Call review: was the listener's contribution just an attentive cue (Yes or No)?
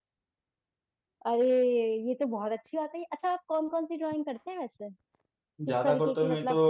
No